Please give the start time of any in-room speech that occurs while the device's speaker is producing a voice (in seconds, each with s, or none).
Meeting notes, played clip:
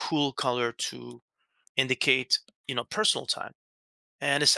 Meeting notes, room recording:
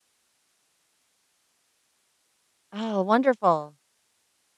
2.7 s